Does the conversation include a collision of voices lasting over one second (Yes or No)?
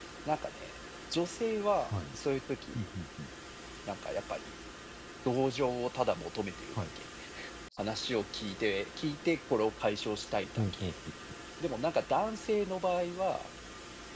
No